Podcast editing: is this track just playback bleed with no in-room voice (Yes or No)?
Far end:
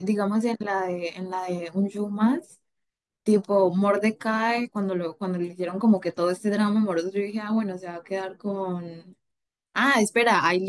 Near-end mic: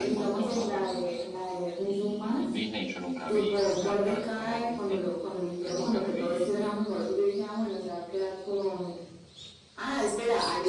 No